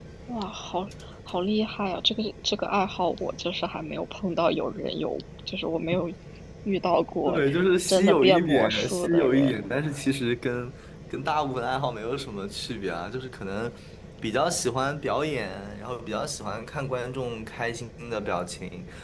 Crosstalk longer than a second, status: present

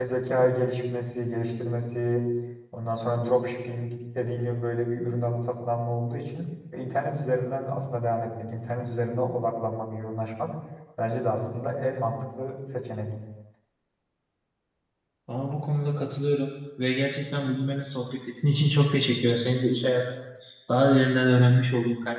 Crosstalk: none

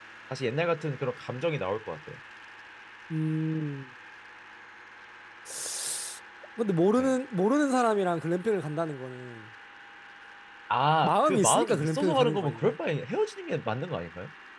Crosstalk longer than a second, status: present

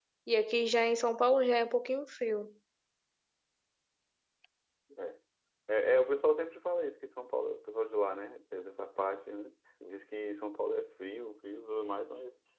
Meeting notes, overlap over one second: none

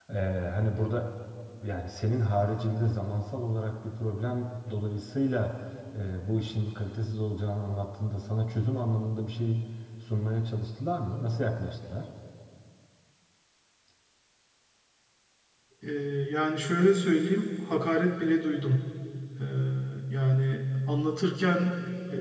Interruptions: none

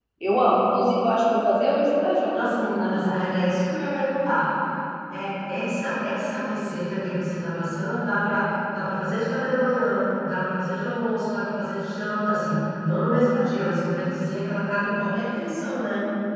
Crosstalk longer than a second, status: none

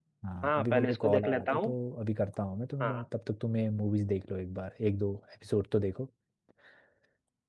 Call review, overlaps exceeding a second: present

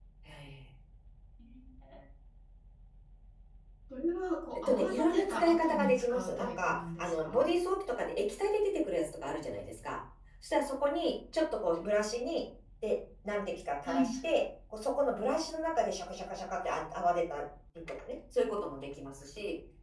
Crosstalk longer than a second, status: present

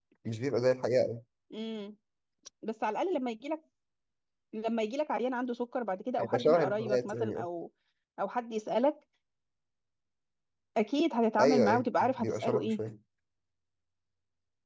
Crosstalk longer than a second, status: present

